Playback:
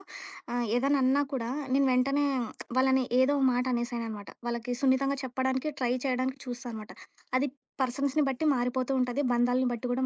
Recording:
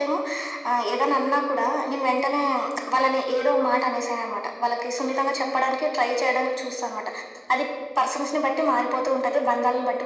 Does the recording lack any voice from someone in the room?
Yes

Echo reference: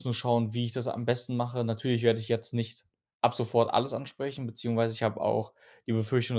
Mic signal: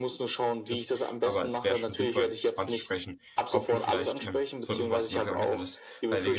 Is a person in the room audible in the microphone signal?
Yes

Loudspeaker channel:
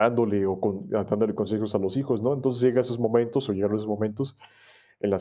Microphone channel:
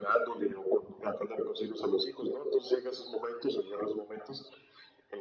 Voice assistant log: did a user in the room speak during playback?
No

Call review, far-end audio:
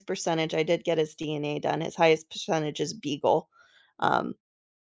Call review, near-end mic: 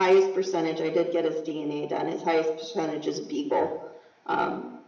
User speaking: No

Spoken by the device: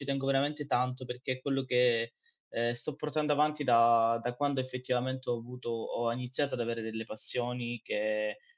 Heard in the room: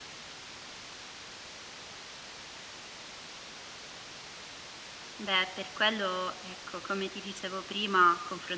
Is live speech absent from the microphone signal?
No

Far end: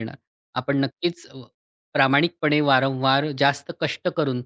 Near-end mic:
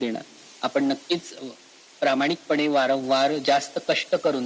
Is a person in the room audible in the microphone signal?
No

